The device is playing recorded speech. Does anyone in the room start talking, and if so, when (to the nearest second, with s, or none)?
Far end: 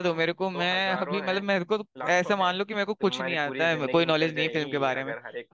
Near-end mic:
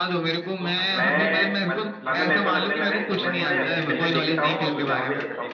1 s